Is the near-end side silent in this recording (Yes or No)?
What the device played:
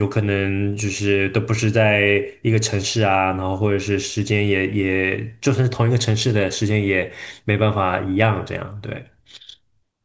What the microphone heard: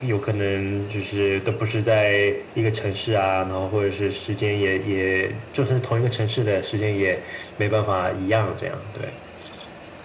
Yes